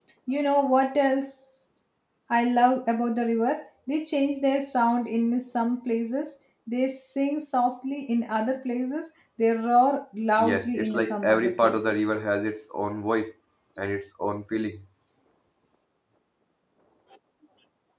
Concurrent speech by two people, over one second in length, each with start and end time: 10.4-12.1

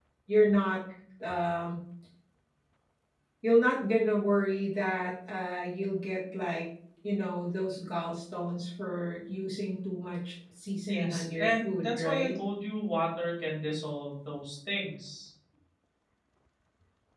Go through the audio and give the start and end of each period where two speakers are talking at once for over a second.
10.8-12.3

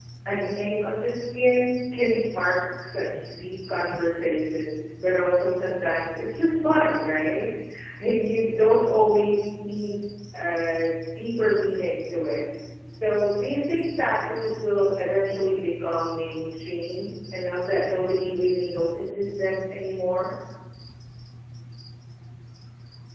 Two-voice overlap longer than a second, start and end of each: none

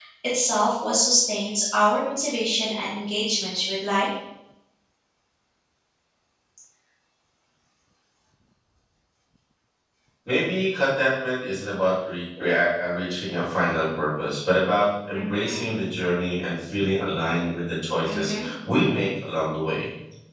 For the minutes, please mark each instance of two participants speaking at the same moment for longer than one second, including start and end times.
none

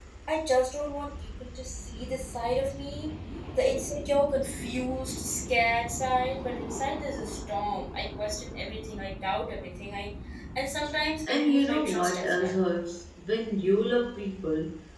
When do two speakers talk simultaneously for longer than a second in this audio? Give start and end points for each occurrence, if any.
11.3-12.6

